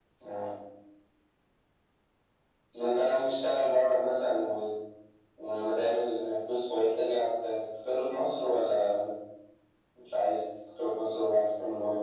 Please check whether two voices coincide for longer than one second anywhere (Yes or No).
No